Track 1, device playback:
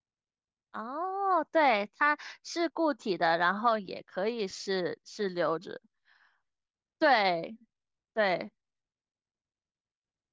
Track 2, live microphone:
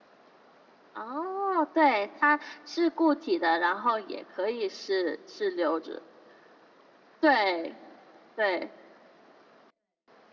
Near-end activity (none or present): none